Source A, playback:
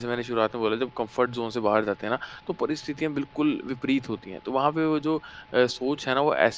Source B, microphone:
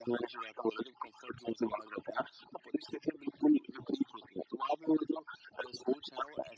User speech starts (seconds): none

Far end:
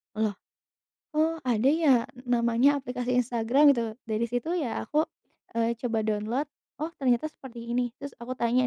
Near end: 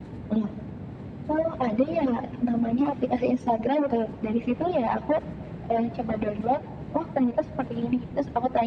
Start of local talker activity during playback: none

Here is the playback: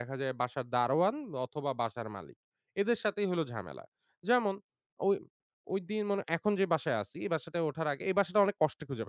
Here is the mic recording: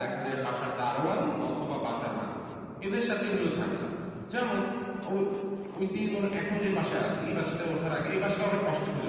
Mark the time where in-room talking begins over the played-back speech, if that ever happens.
none

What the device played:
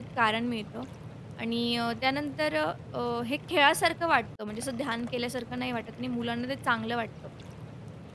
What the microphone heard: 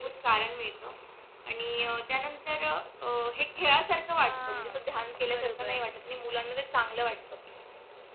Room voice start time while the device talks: 4 s

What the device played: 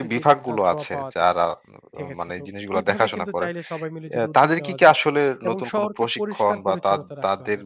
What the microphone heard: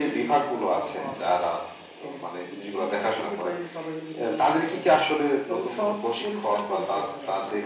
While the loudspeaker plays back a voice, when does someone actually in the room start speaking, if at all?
none

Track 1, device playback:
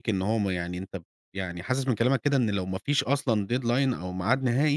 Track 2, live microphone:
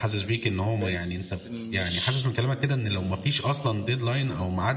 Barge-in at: 1 s

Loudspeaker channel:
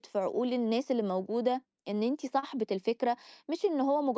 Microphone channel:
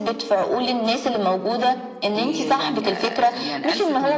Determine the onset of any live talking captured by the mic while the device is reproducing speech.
2 s

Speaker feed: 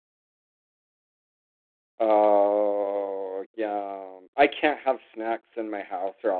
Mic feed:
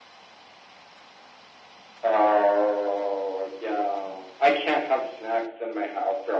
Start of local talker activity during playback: none

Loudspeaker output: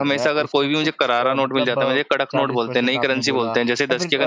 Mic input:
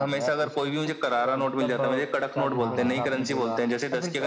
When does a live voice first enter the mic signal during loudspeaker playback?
3 s

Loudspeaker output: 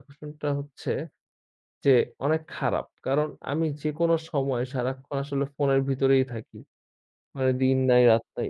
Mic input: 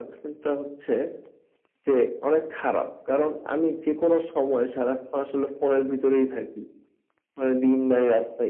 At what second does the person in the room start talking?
none

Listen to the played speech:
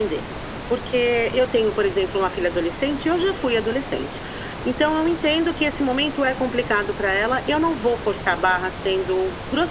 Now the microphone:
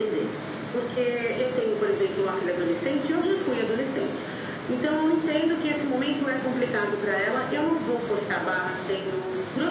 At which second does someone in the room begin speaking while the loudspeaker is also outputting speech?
none

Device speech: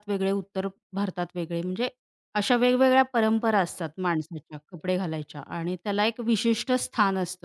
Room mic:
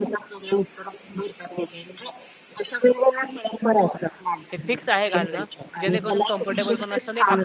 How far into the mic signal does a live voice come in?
5 s

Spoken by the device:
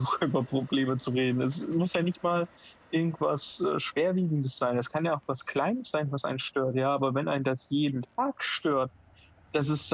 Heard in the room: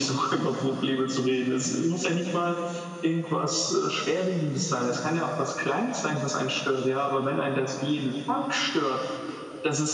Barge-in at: none

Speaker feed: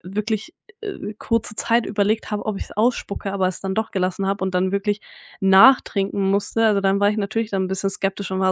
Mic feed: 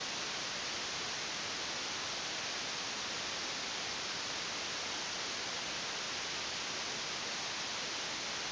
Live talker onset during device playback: none

